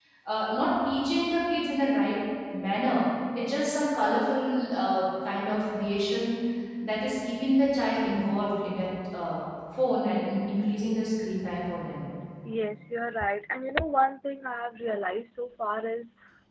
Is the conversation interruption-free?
Yes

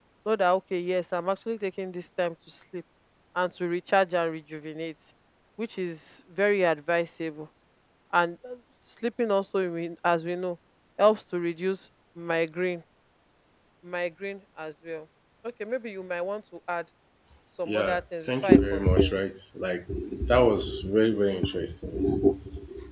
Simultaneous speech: Yes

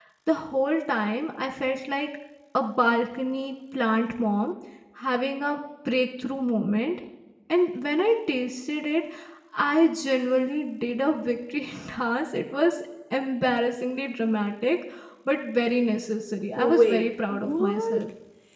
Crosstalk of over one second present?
Yes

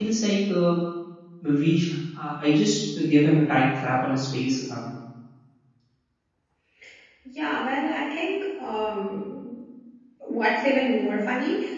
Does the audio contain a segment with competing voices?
No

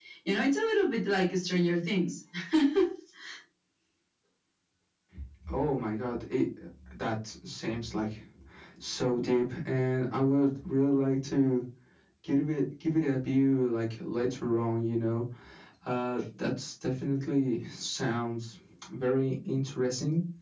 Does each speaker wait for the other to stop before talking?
Yes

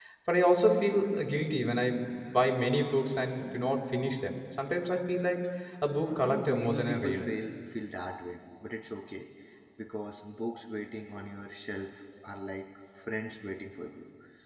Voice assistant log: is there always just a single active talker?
No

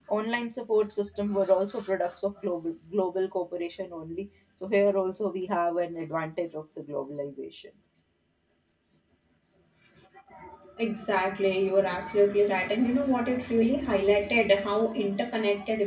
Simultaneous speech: No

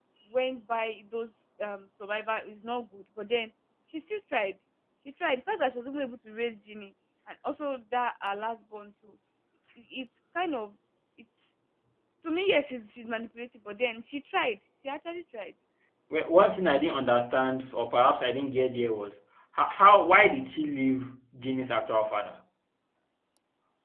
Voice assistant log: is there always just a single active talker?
Yes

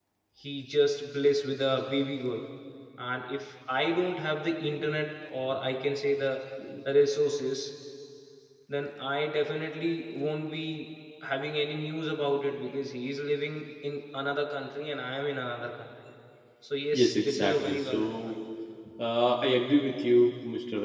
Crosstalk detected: Yes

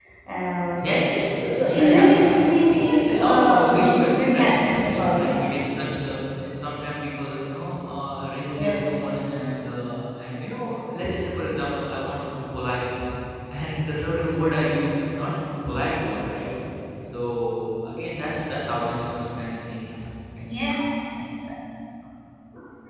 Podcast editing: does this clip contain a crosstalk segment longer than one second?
Yes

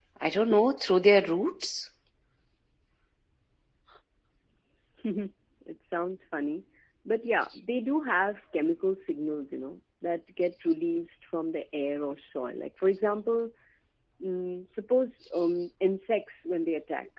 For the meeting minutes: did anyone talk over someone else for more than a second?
No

